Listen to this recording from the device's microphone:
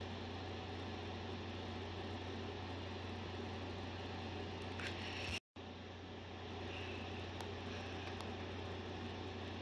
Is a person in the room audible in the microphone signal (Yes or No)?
No